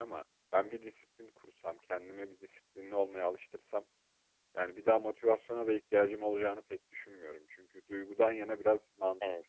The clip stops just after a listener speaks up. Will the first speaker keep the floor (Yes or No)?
Yes